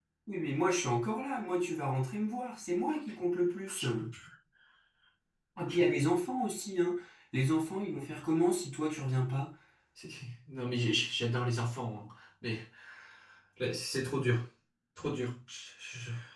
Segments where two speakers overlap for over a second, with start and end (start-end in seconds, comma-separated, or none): none